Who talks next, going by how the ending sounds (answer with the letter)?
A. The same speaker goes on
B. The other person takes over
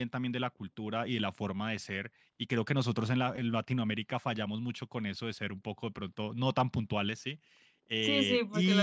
B